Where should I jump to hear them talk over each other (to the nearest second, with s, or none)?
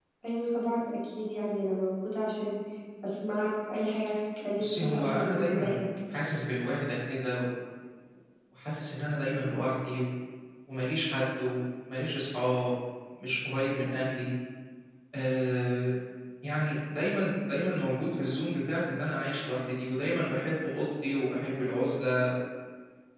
5 s